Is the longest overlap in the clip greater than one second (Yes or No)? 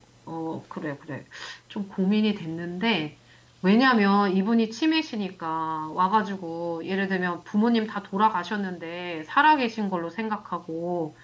No